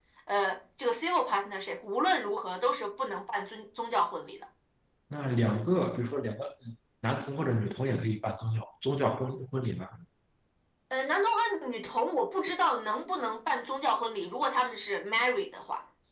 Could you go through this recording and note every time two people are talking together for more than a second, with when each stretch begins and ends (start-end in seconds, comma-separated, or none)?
none